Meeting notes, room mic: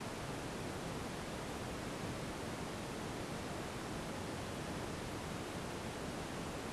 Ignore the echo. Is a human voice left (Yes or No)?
No